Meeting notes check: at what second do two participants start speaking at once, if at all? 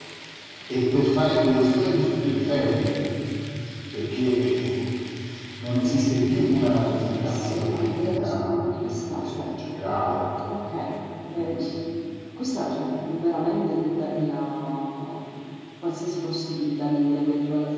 7 s

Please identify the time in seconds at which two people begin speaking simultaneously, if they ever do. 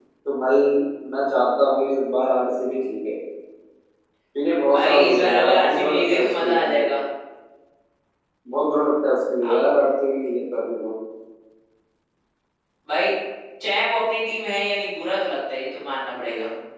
5 s

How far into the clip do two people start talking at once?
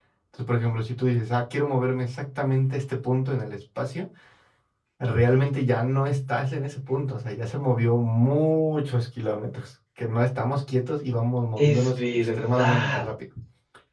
12 s

